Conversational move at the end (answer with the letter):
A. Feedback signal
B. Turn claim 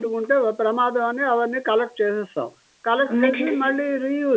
A